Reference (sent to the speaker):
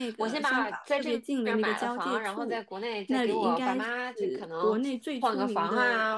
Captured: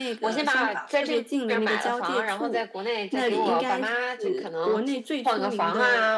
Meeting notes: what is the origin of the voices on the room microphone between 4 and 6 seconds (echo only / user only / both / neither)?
echo only